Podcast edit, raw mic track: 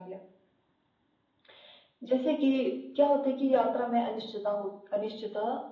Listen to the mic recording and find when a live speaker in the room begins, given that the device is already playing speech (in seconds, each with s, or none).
none